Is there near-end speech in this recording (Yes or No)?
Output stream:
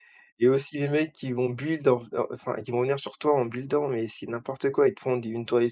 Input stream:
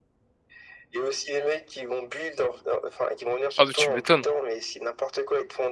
Yes